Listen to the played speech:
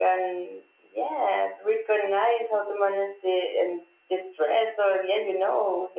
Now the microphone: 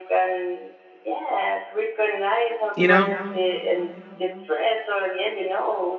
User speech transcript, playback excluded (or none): you know?